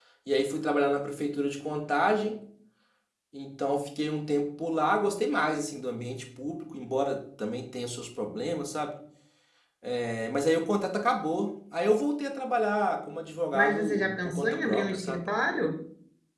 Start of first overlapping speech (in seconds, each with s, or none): 13.5 s